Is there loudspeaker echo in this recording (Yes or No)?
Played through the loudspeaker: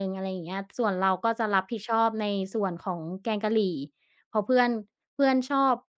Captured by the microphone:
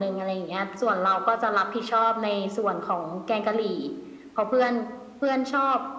Yes